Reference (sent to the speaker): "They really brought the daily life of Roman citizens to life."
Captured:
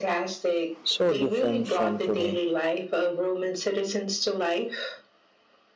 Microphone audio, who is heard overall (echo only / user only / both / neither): both